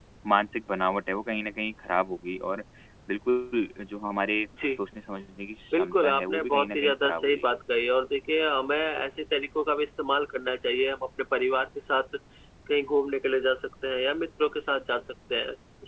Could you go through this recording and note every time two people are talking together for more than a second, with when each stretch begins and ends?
5.7-7.5

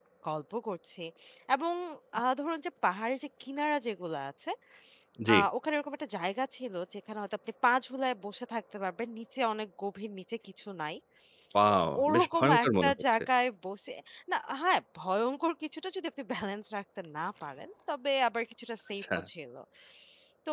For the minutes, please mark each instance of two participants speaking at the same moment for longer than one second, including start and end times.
11.7-13.2

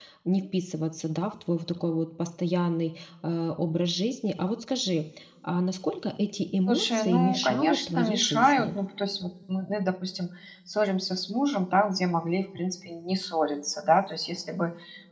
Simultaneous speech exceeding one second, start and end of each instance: 6.7-8.8

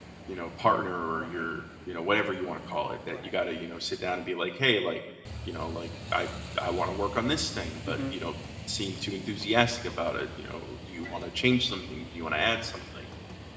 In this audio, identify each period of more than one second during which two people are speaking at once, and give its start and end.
none

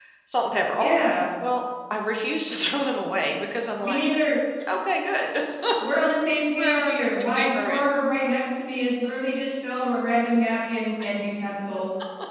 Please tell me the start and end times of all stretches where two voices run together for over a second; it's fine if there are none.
6.6-7.8

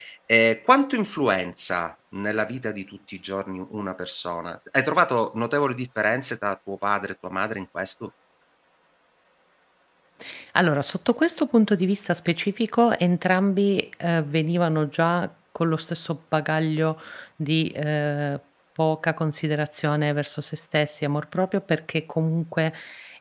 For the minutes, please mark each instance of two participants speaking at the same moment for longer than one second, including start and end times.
none

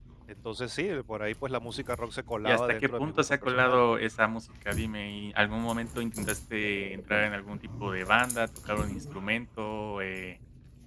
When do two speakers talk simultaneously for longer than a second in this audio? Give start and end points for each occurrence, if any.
2.4-3.8

